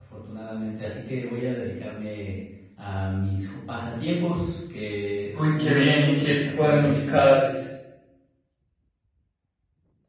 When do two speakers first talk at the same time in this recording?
5.3 s

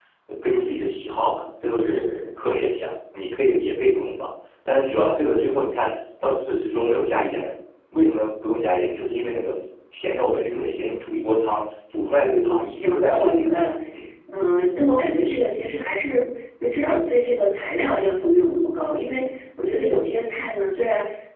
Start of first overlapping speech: 12.2 s

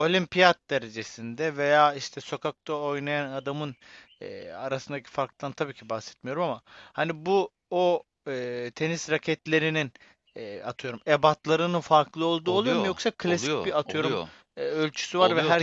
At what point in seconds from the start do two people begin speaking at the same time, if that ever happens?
12.5 s

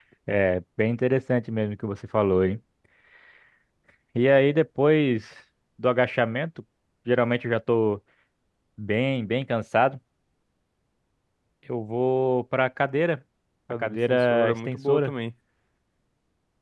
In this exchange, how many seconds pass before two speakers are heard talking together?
13.8 s

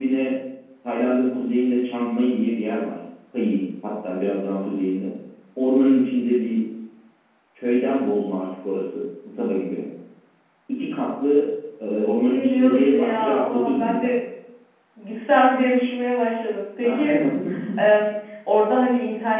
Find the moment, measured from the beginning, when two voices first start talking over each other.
12.3 s

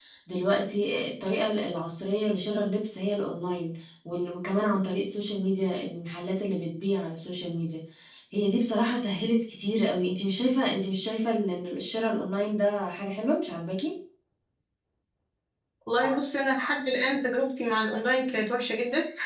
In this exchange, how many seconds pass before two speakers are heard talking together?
none

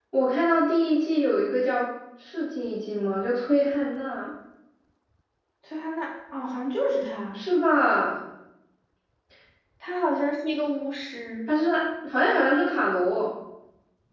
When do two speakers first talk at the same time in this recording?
none

